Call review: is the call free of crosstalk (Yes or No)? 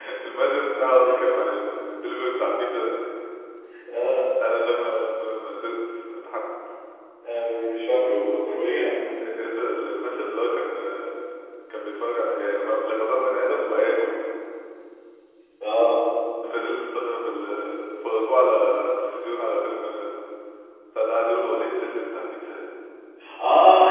Yes